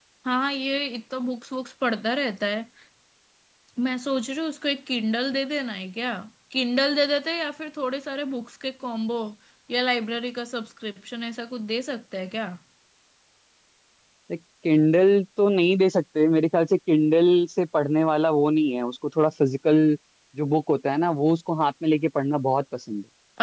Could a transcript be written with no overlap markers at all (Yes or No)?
Yes